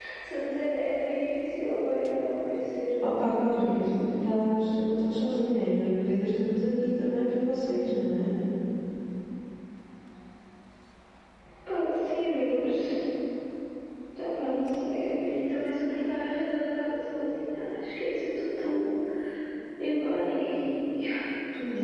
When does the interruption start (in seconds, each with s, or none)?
3.0 s